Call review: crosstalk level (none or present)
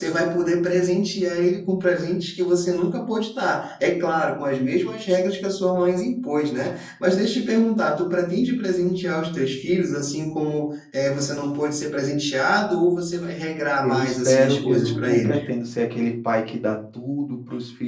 present